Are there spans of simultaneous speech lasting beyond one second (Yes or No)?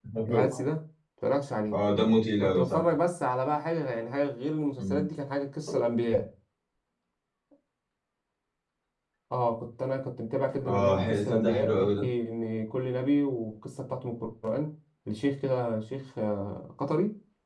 Yes